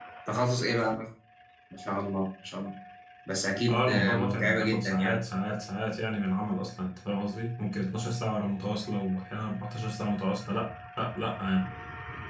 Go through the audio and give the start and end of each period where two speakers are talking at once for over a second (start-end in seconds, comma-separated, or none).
3.7-5.2